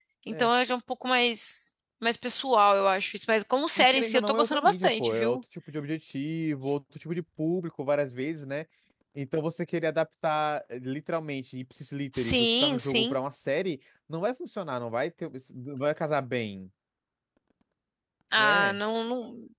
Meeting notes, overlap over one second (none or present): present